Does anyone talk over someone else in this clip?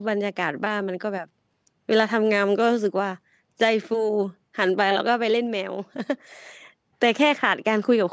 No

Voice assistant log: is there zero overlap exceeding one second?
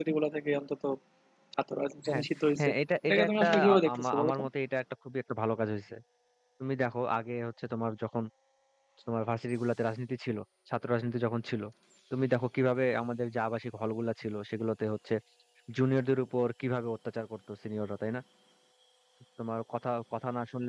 No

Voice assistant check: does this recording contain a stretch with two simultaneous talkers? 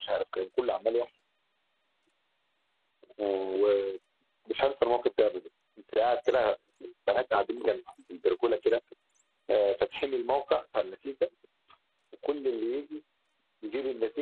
No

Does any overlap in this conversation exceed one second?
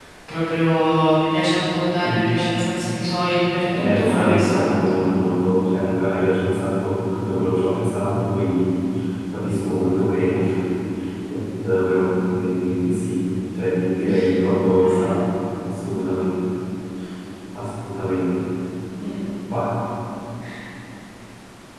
Yes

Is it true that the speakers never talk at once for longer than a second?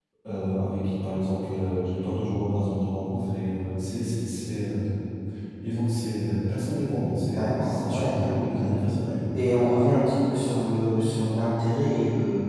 No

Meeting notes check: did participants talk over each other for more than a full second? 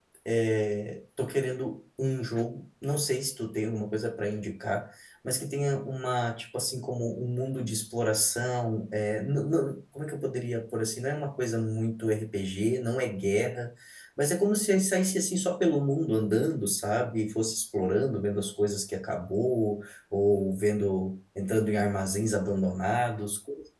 No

